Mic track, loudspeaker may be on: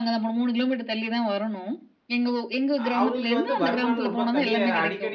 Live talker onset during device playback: 2.8 s

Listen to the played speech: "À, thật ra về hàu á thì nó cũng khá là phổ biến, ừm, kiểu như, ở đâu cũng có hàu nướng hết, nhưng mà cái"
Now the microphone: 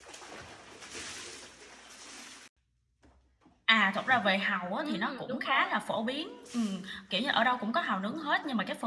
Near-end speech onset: 4.7 s

